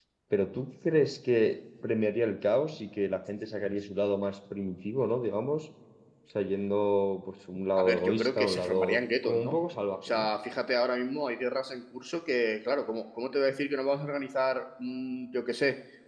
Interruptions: present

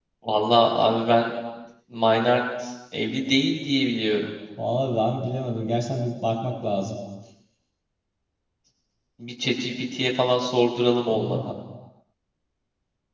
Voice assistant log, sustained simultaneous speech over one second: none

